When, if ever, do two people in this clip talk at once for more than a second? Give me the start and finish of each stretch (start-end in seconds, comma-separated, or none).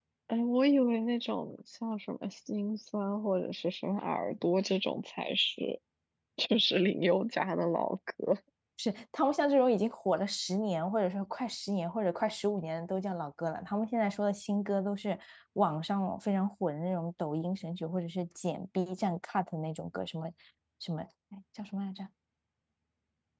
none